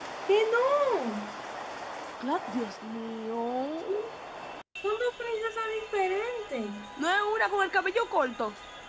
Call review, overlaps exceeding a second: none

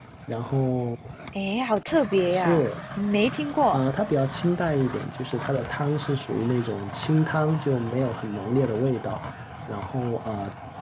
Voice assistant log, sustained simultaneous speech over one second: none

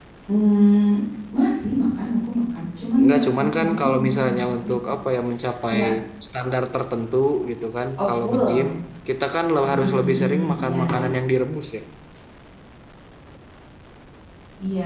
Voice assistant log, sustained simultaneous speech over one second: present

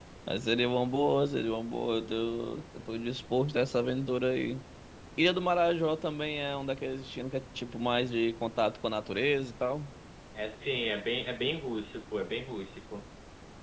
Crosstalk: none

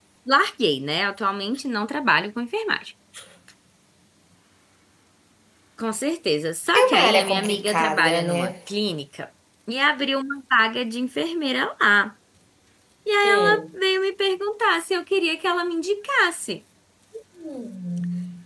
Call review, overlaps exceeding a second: present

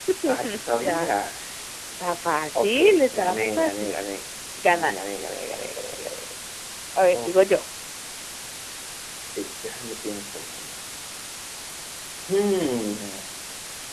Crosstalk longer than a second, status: present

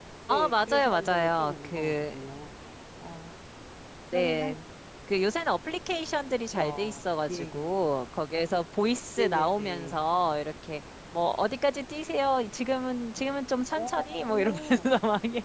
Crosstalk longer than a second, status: present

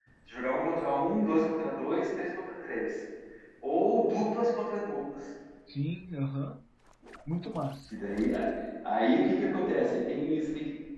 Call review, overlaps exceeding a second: none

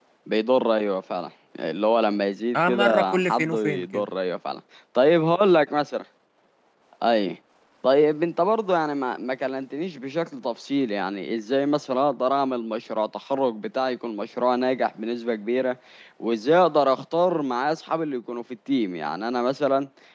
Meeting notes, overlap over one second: present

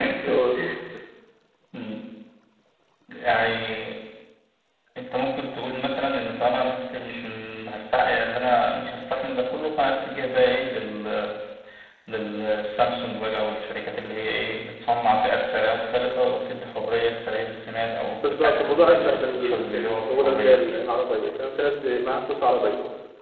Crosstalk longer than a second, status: present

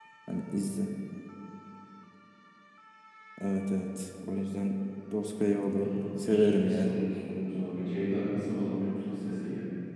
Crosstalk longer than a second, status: present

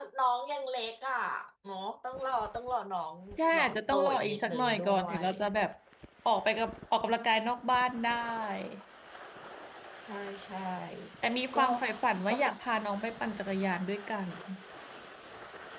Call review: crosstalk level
present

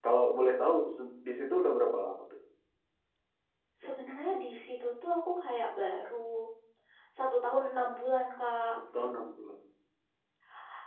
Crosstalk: none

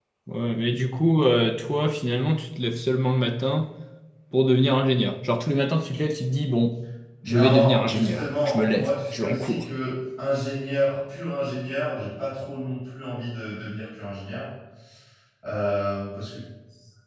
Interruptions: present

